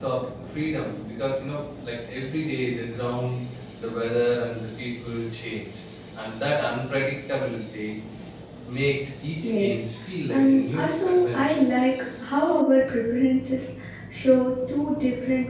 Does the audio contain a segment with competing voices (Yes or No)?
Yes